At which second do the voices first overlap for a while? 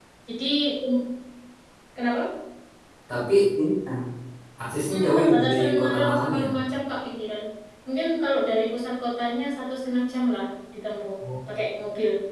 4.9 s

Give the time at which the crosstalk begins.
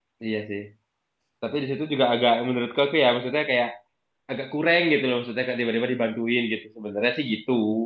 none

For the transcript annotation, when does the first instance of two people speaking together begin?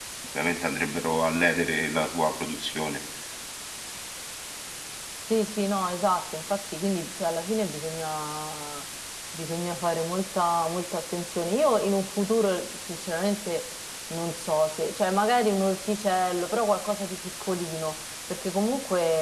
none

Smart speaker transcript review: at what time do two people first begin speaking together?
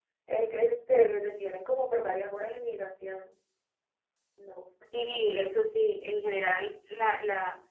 none

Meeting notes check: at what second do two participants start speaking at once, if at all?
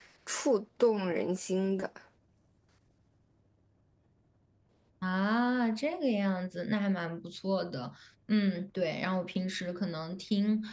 none

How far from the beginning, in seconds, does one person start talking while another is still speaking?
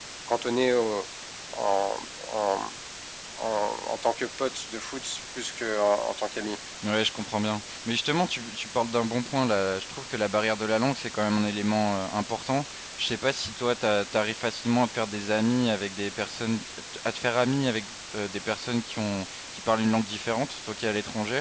none

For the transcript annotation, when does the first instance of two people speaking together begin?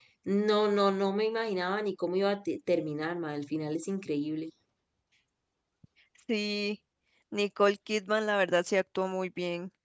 none

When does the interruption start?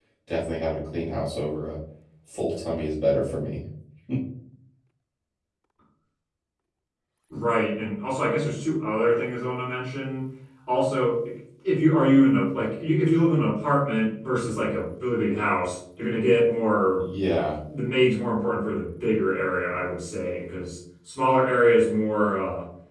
none

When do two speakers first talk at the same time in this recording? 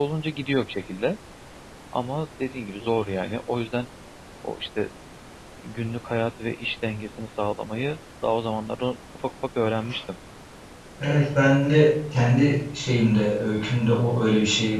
none

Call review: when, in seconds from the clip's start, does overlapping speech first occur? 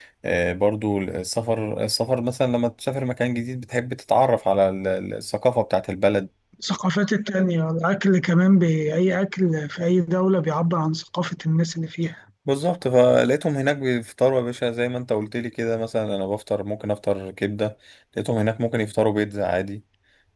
none

